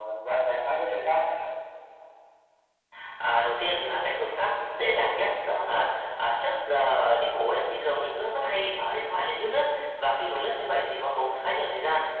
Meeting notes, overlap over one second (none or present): none